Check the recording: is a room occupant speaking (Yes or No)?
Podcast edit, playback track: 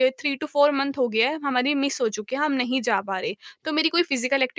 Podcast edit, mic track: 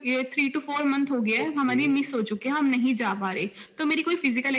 Yes